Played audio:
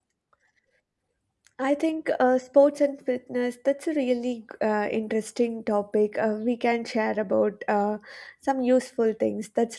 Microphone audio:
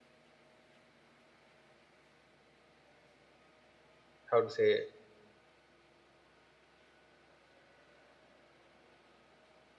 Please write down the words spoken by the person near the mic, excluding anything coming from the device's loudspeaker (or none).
how to say